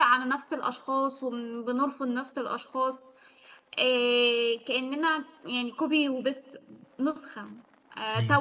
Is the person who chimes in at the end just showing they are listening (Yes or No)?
Yes